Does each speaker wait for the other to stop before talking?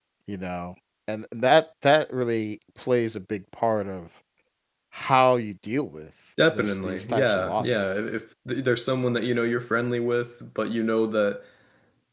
No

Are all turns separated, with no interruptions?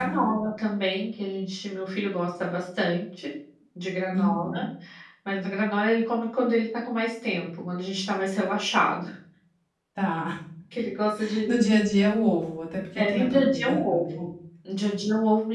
No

